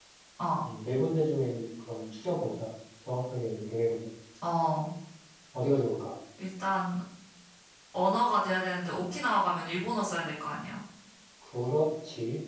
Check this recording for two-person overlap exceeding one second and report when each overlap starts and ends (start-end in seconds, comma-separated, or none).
none